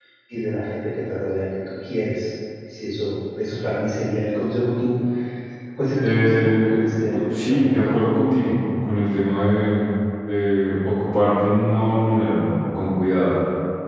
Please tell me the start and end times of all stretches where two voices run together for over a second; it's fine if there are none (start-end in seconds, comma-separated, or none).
6.0-7.9